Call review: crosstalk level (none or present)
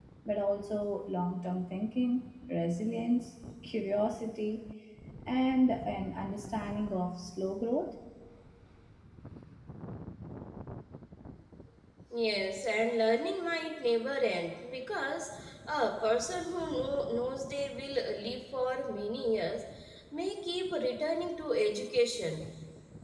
none